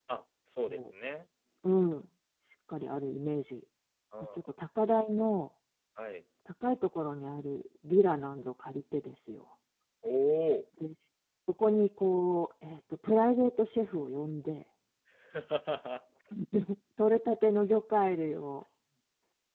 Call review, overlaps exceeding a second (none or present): none